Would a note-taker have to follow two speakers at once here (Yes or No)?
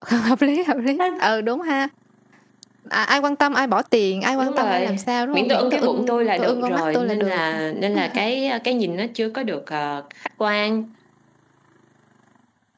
Yes